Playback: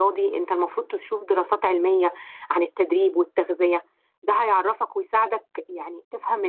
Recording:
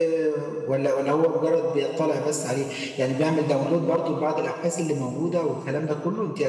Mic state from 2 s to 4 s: user only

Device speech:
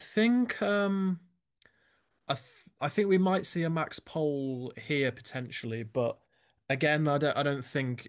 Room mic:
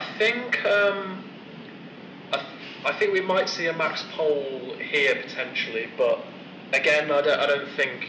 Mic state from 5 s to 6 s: echo only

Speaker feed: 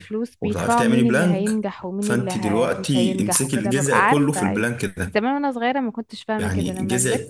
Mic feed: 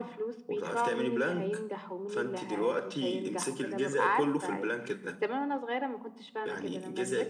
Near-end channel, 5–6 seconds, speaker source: echo only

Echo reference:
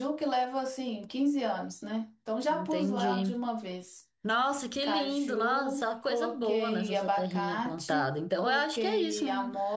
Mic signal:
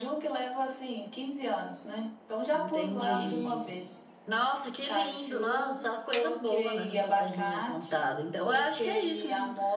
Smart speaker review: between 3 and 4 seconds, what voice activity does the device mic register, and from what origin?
both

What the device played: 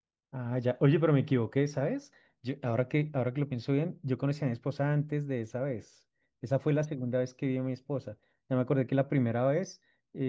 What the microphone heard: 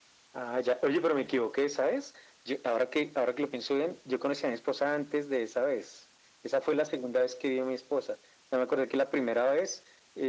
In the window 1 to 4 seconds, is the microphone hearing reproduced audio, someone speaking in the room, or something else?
echo only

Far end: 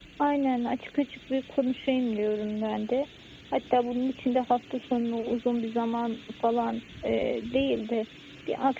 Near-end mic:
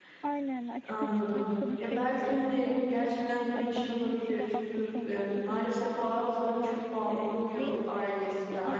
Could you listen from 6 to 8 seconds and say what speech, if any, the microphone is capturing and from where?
both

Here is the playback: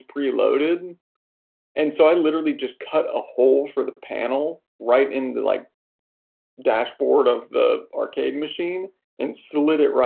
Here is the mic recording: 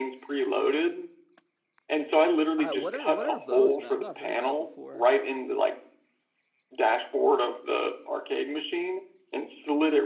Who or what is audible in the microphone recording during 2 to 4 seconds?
both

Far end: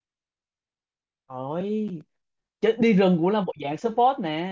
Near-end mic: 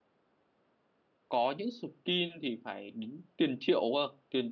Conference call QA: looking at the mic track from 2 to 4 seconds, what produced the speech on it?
user only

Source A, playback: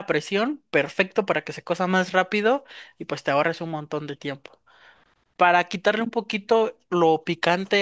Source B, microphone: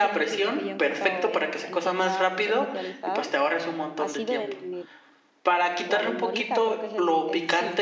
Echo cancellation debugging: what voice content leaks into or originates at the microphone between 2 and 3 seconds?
both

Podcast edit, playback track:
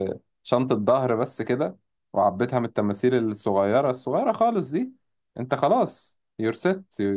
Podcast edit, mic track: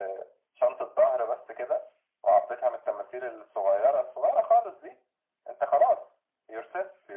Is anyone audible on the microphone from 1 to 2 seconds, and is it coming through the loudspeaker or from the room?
echo only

